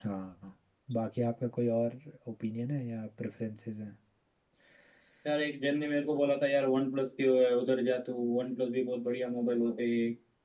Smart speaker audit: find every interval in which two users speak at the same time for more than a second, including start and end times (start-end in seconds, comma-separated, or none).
none